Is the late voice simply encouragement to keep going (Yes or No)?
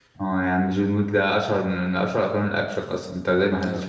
No